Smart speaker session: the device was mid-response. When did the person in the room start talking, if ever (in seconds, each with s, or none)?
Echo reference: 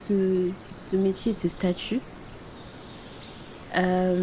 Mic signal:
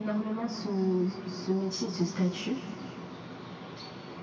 none